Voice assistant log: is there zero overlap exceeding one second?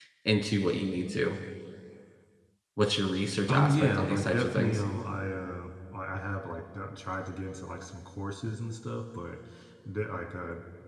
No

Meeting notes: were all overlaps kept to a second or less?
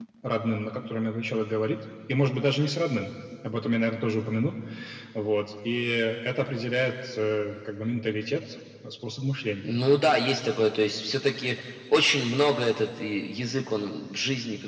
Yes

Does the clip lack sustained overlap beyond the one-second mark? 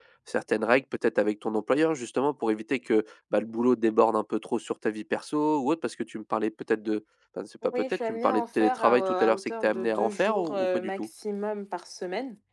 No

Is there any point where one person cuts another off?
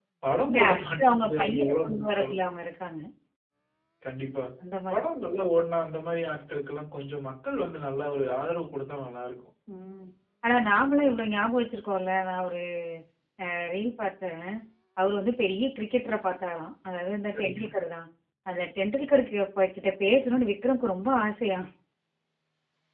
Yes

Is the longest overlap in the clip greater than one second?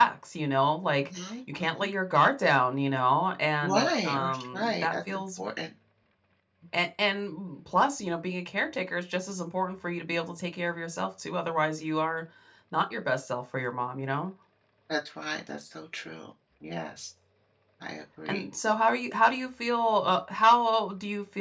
Yes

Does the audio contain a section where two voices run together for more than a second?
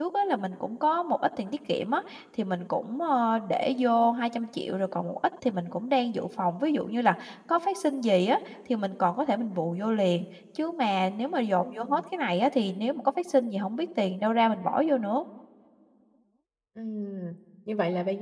No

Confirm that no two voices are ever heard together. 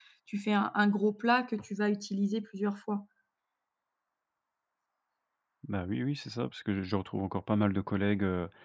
Yes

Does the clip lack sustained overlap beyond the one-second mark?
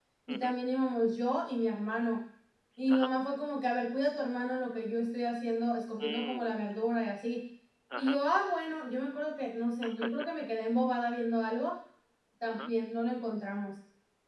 Yes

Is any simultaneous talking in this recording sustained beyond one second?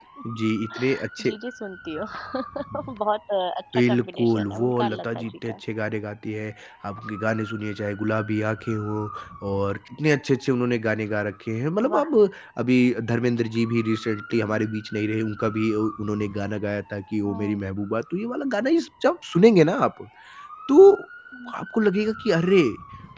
Yes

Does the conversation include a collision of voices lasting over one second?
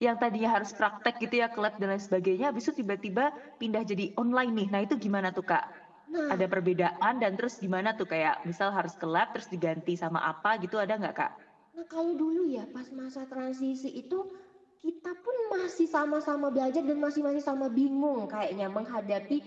No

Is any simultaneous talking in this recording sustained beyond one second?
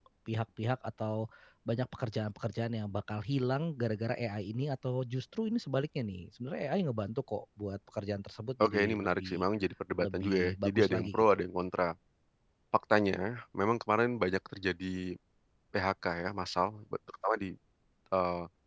Yes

